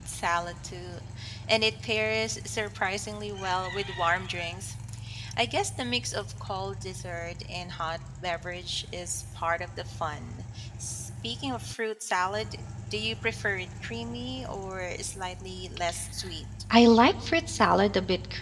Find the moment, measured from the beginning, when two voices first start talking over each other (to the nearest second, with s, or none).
none